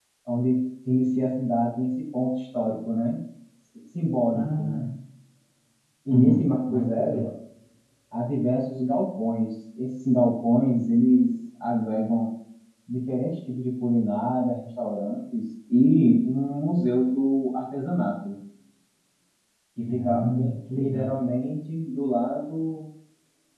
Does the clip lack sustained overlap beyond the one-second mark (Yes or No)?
No